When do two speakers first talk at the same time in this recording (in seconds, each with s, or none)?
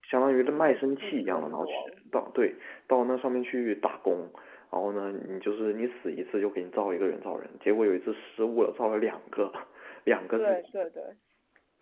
0.5 s